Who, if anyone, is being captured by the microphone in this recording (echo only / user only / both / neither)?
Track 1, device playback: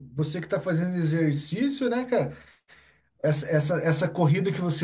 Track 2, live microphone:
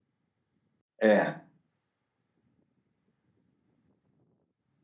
user only